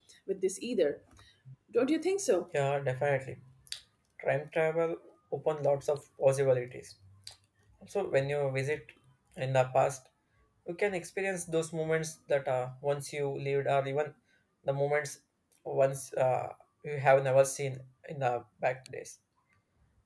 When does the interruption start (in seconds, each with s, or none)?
none